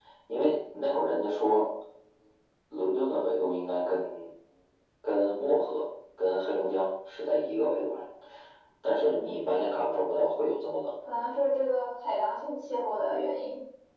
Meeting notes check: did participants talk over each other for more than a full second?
No

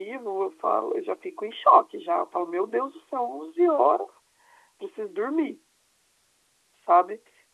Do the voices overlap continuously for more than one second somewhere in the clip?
No

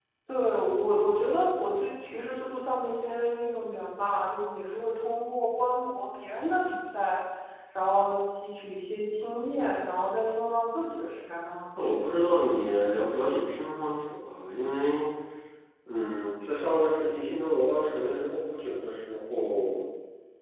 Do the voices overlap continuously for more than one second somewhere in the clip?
No

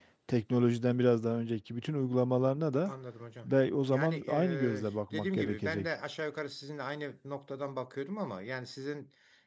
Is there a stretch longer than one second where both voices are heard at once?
Yes, from 3.9 s

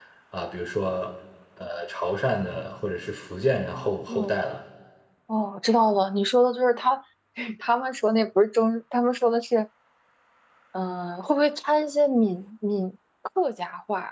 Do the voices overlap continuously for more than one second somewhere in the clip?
No

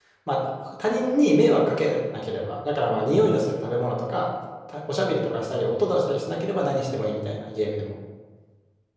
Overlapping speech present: No

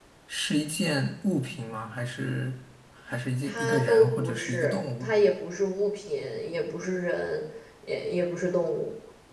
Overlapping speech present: Yes, from 3.4 s

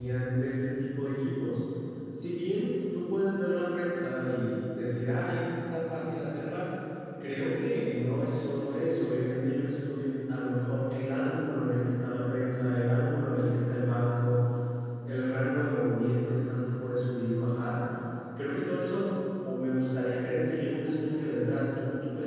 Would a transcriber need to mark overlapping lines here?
No

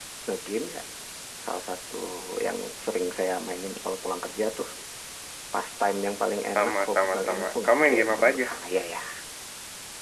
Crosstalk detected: Yes, from 6.6 s

